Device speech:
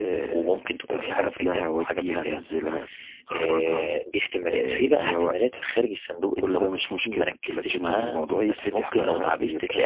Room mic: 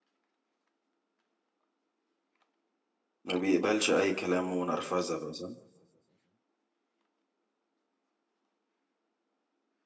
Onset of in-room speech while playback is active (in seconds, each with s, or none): 3.2 s